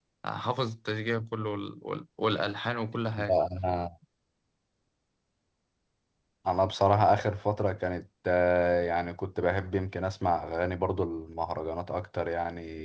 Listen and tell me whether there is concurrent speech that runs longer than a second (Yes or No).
No